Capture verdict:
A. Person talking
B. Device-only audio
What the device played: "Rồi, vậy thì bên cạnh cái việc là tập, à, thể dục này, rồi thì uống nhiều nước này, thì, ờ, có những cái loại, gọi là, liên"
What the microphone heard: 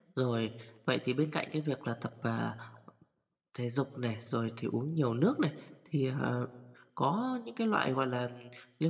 B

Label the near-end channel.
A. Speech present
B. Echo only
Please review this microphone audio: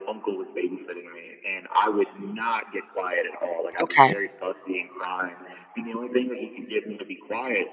A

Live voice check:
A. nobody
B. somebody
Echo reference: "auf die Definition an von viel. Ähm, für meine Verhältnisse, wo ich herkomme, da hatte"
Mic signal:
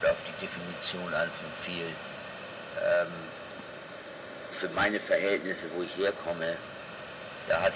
A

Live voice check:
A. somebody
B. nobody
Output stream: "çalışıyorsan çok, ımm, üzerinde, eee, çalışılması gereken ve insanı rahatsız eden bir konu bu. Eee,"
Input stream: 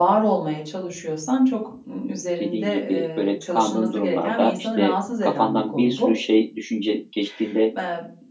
A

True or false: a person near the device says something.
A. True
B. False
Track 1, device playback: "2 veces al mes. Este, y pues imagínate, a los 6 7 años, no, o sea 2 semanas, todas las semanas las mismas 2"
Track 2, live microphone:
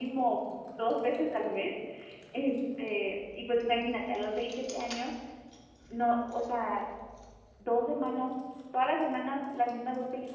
B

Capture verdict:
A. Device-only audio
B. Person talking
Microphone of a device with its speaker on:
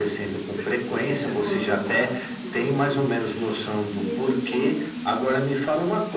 B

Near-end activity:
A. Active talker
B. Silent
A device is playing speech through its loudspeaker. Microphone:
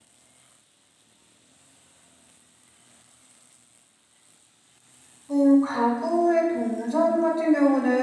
A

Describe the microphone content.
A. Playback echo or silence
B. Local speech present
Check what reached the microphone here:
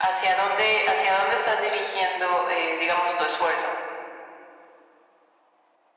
A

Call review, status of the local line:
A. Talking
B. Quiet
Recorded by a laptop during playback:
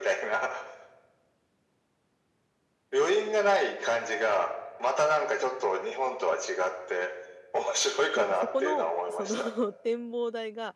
A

